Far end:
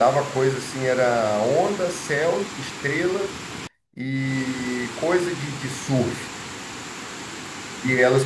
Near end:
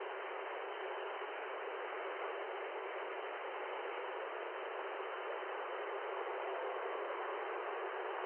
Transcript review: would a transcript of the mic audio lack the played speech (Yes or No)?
Yes